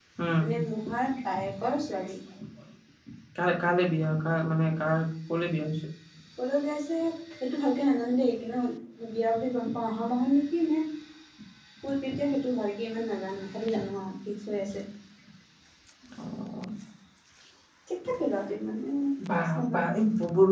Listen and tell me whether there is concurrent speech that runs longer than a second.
No

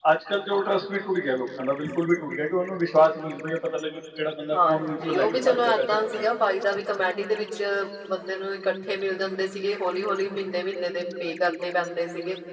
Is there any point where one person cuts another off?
Yes, from 4.5 s

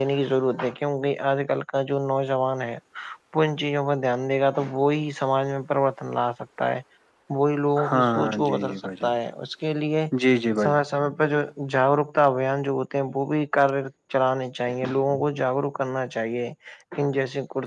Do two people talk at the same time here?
Yes, from 7.9 s

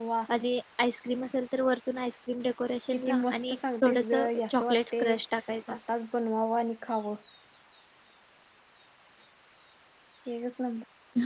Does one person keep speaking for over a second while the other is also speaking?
Yes, from 2.9 s

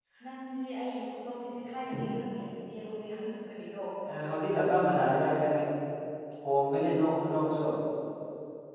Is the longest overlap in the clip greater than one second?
No

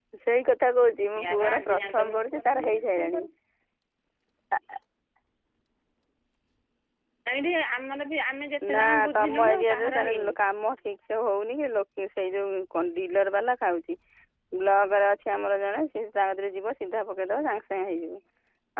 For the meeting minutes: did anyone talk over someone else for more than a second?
Yes, from 1.2 s

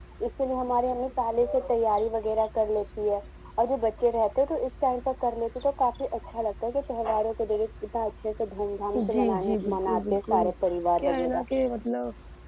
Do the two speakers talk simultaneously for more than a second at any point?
Yes, from 9.1 s

